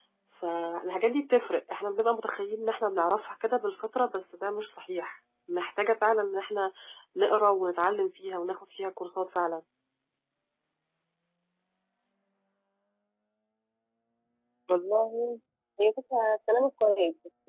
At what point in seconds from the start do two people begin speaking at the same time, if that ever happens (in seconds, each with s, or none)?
none